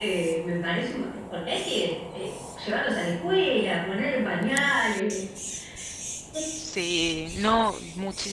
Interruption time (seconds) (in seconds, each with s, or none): none